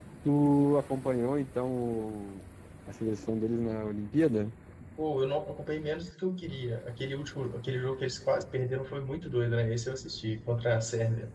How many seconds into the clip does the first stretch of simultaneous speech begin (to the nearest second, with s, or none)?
none